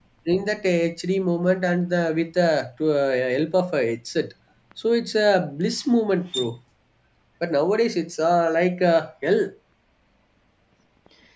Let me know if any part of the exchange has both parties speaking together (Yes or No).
No